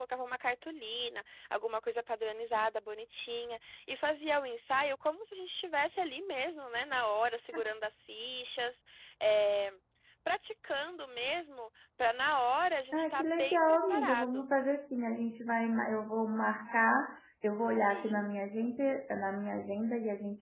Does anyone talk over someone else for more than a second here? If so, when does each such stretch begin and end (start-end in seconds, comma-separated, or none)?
12.9-14.4